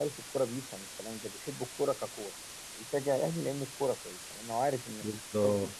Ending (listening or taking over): taking over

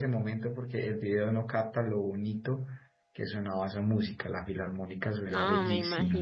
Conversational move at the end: taking over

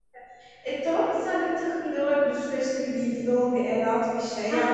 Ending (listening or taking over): taking over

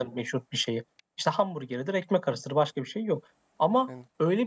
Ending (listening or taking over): listening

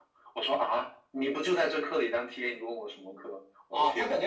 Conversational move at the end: taking over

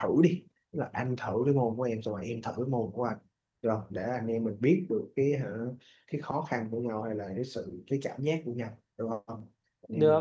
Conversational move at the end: taking over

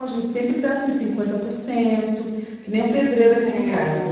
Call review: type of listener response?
listening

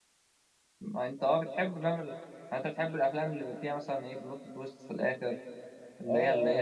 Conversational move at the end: taking over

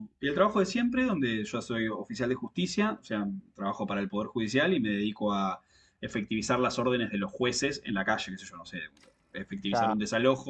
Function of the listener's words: listening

